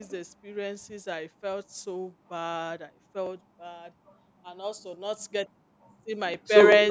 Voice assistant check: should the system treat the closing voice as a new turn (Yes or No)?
No